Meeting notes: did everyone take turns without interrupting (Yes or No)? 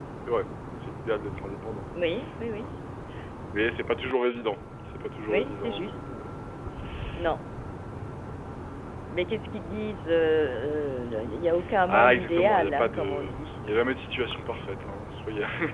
No